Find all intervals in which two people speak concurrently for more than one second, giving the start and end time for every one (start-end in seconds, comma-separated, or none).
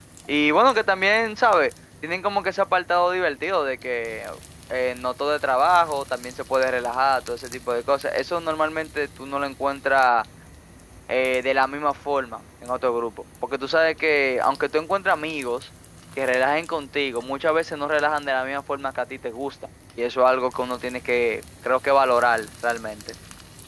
none